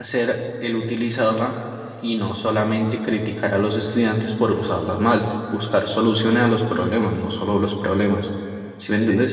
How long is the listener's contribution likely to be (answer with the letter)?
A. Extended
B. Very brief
A